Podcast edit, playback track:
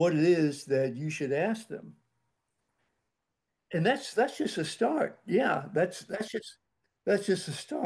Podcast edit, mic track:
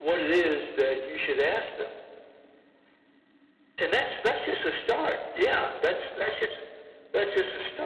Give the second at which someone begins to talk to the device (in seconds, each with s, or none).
none